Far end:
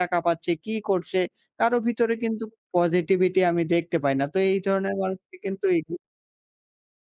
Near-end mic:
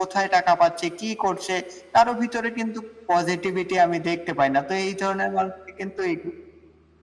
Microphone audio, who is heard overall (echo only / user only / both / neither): echo only